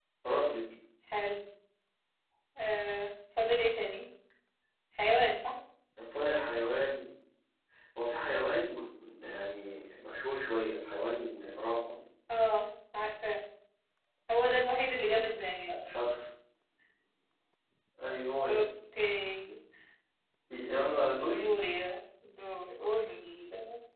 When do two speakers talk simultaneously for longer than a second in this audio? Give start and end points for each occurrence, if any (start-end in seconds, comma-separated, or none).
none